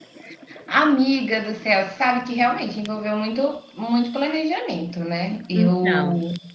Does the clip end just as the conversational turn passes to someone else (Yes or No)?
No